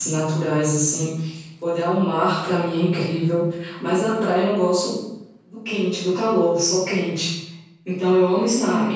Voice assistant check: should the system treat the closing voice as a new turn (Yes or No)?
No